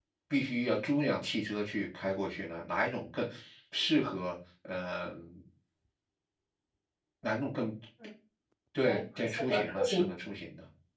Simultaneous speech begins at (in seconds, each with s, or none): 8.8 s